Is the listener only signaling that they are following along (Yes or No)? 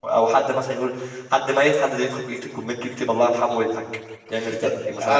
No